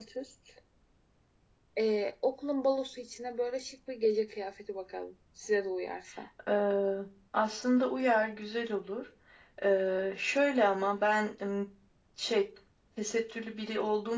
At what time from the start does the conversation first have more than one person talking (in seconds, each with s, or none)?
none